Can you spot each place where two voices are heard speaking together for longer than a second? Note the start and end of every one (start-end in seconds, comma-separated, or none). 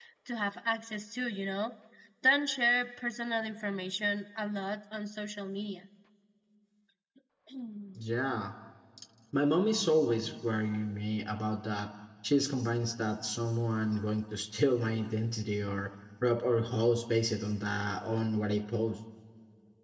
none